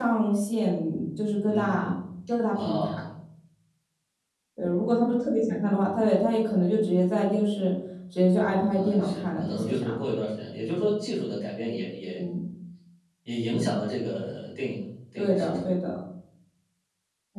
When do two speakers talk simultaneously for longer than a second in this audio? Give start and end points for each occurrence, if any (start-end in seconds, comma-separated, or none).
8.7-10.0